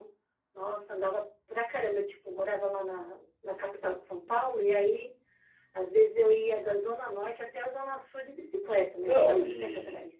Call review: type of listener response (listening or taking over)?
taking over